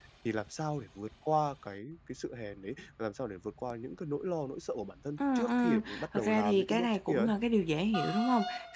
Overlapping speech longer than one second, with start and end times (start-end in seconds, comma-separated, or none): 5.2-7.3